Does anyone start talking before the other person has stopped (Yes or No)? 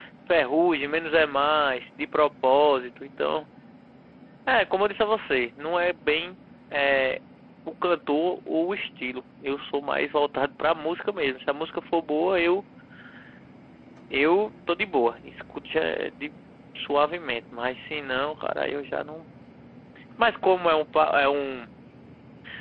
No